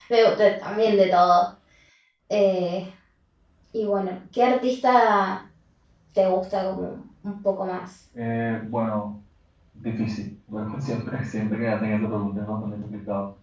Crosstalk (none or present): none